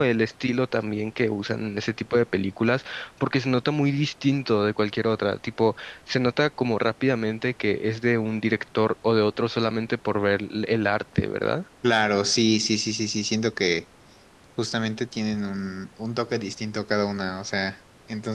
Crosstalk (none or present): none